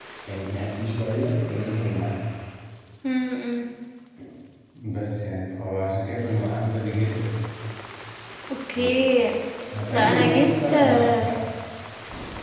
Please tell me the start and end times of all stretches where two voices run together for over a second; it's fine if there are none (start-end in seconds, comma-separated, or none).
9.9-11.3